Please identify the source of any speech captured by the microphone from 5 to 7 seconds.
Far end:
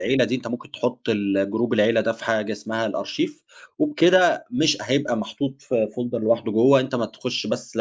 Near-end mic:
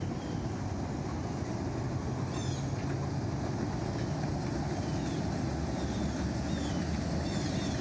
neither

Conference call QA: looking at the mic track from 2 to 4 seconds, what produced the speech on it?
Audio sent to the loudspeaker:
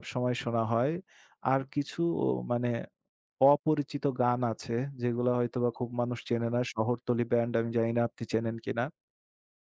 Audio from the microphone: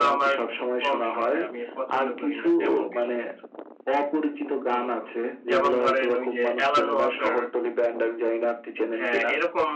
both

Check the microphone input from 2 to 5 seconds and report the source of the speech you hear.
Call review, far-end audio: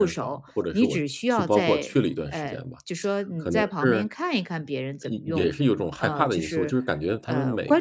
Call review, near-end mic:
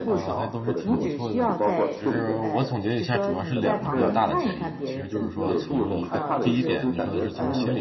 both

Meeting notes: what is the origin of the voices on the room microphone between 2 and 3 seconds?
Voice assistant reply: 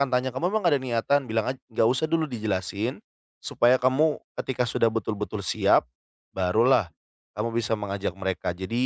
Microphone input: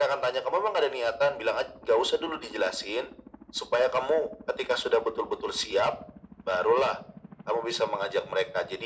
echo only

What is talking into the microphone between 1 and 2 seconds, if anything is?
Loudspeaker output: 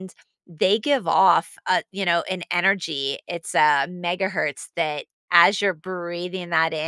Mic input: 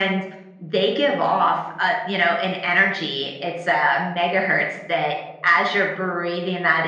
echo only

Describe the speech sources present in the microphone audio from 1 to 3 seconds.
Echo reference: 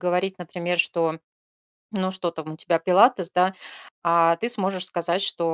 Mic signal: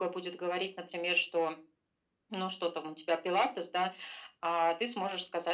echo only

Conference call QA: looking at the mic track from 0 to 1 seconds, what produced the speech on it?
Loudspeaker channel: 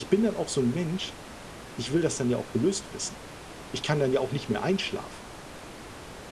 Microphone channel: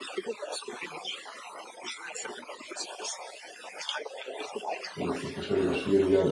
echo only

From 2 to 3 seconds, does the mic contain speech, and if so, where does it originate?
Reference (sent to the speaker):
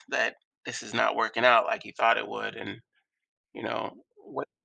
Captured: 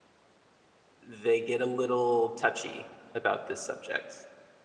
user only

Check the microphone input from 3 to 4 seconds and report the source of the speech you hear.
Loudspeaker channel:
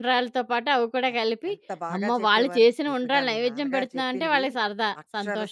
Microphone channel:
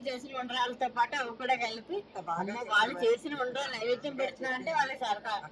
echo only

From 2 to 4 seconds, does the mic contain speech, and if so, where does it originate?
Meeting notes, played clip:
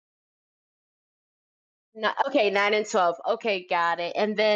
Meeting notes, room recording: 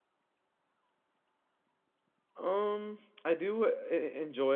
user only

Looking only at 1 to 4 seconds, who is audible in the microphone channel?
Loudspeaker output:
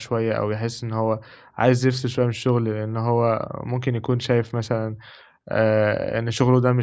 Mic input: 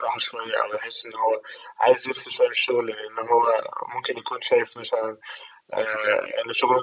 echo only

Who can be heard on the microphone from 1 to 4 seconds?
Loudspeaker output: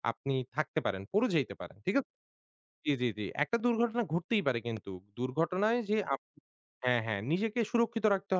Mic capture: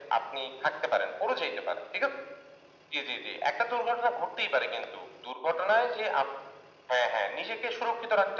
echo only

